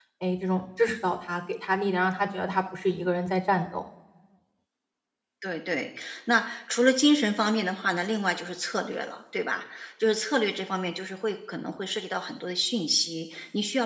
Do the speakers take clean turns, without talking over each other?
Yes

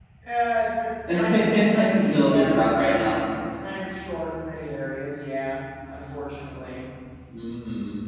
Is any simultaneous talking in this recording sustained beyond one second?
Yes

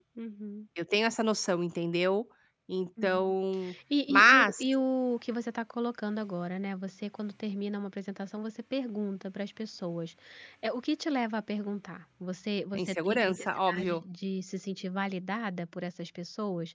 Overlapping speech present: Yes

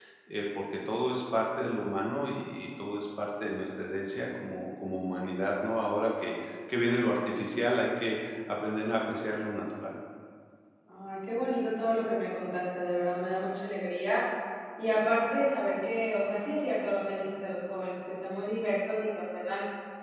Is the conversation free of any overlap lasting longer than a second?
Yes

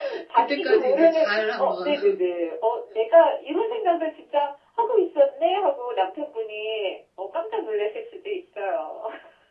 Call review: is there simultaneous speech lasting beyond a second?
Yes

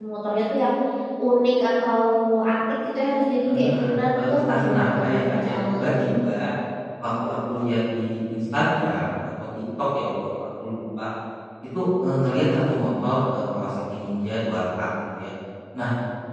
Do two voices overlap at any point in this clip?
Yes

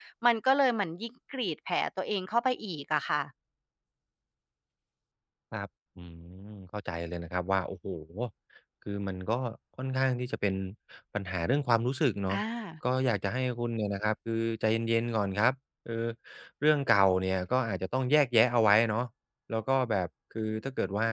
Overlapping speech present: No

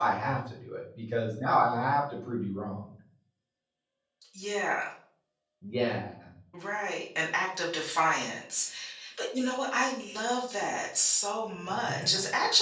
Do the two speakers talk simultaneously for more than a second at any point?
No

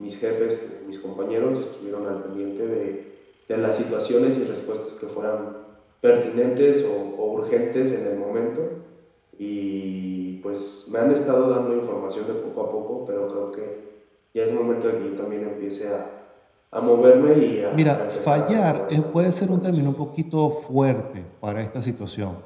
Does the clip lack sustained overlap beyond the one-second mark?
No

